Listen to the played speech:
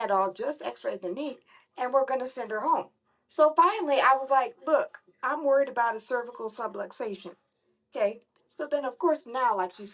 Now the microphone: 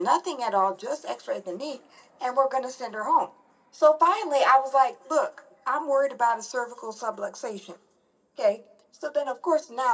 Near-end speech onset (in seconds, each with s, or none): none